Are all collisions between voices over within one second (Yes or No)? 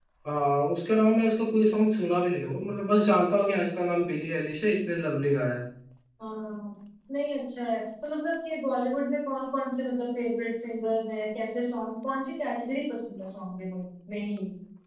Yes